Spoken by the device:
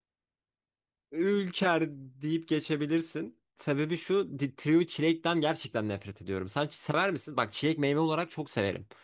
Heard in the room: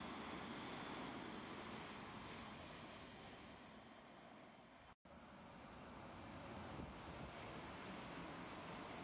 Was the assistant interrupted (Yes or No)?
No